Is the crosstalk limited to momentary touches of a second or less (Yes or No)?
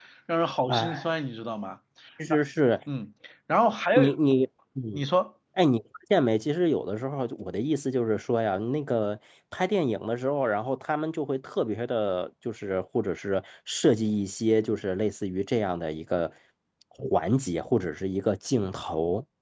Yes